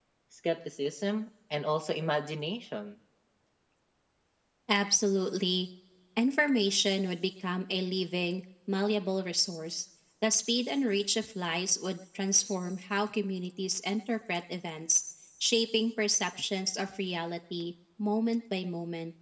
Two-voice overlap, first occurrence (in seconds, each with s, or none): none